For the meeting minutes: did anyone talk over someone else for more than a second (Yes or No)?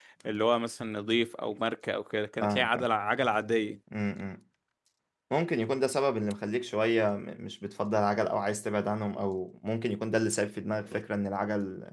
No